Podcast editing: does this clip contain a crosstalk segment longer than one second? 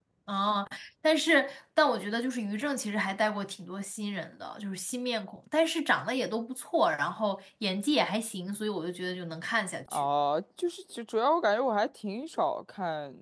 No

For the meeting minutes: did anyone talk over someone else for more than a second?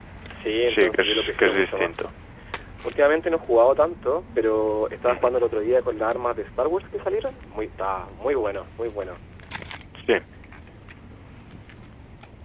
Yes, from 0.7 s

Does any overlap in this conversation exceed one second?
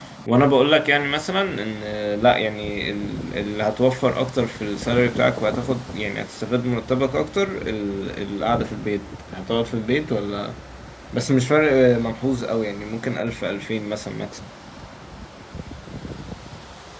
No

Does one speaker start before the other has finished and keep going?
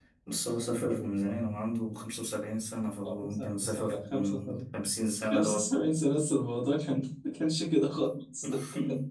Yes, from 3.0 s

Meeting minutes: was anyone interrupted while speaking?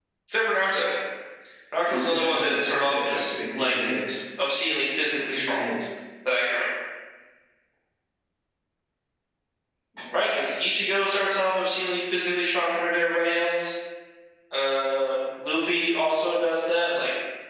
Yes, from 1.8 s

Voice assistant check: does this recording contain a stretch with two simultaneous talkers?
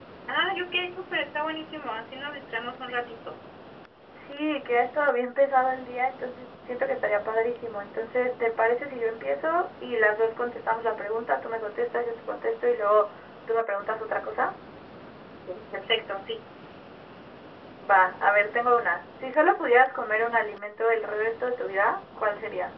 No

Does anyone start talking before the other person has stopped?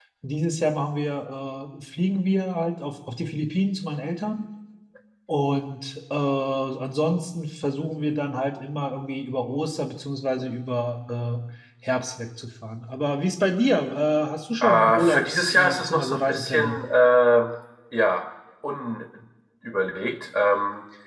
Yes, from 14.6 s

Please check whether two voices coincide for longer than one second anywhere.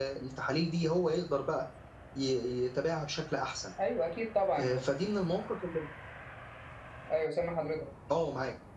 No

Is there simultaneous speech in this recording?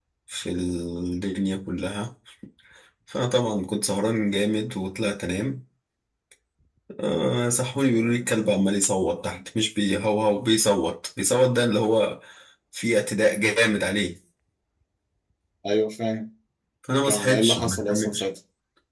Yes, from 17.0 s

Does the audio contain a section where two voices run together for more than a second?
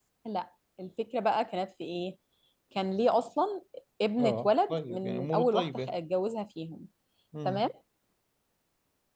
Yes, from 4.2 s

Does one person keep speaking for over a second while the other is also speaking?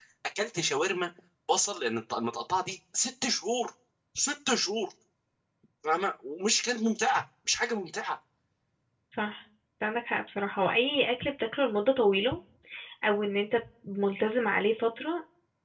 No

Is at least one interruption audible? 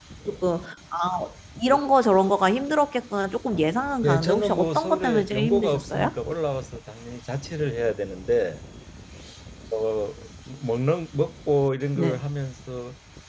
Yes, from 4.0 s

